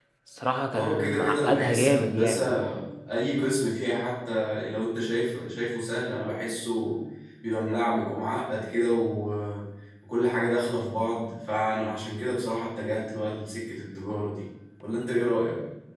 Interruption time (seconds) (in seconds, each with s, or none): 0.7 s